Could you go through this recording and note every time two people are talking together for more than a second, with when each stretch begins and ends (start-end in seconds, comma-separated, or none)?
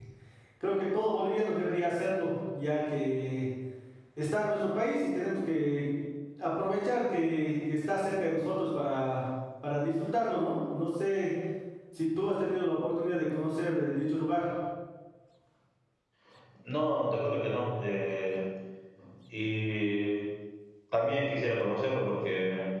none